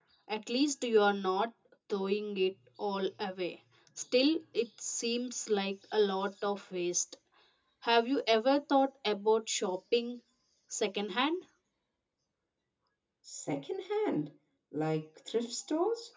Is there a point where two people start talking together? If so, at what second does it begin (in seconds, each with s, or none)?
none